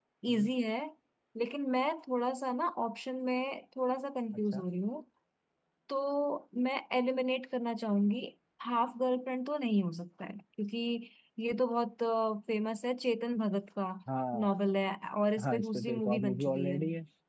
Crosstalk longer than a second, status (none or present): present